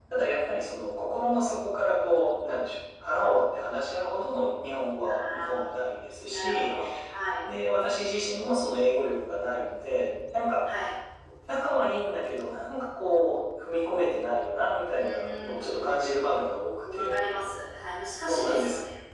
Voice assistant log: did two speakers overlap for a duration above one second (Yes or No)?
Yes